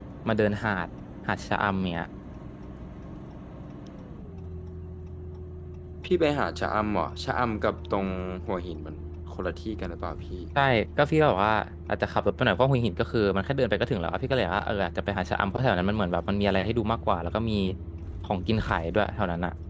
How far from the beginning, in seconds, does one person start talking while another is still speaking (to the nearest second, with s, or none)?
none